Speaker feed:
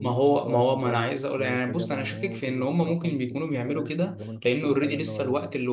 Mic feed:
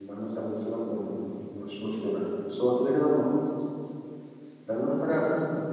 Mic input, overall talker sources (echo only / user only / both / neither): user only